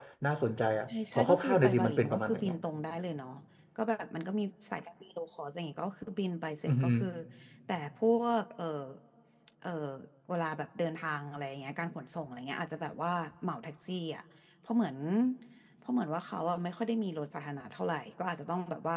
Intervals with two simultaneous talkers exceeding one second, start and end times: 1.1-2.5

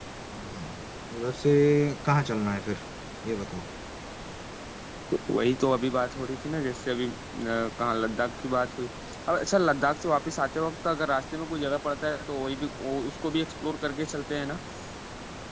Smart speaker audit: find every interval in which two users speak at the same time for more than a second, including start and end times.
none

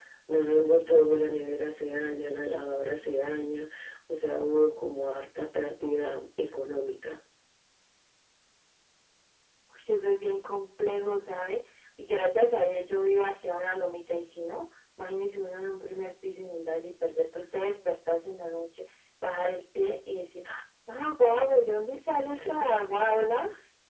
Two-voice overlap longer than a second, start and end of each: none

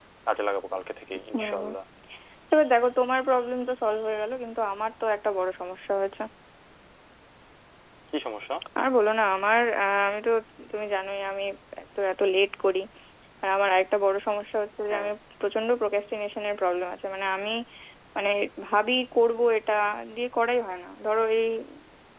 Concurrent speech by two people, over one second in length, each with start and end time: none

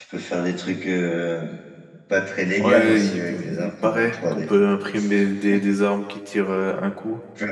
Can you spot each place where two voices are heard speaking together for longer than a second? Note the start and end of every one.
2.6-4.5

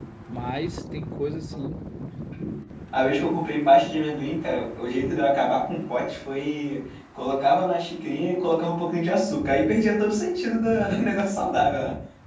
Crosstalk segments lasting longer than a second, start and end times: none

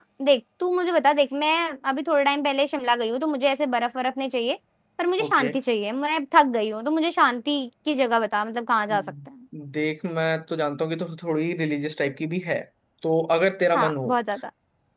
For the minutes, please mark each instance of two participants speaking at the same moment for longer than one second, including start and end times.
none

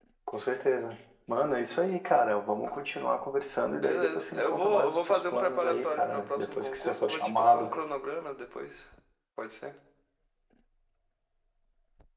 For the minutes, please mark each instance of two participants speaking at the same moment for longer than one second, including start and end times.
3.8-7.8

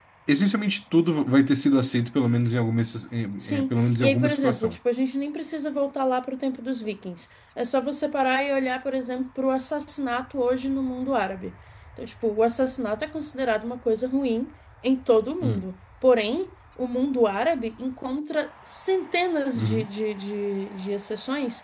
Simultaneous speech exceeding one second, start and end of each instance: 3.4-4.8

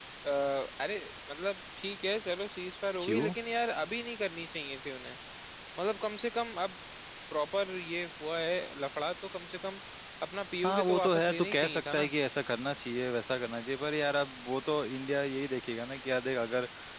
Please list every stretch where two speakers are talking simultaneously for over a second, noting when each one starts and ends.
10.7-12.1

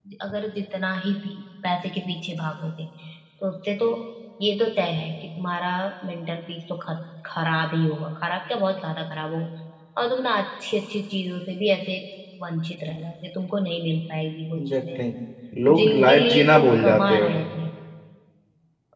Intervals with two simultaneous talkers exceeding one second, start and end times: 15.7-17.4

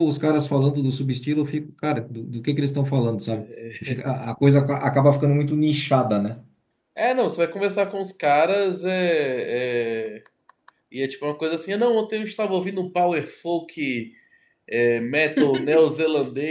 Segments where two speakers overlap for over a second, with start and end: none

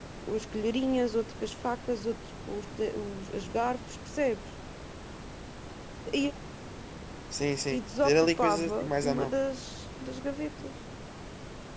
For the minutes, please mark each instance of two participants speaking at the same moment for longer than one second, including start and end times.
7.7-9.3

